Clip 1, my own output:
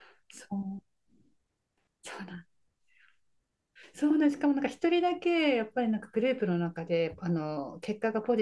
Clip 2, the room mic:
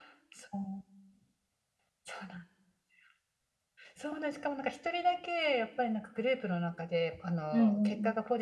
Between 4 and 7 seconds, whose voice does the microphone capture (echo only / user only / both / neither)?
echo only